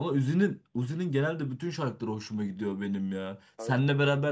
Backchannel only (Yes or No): Yes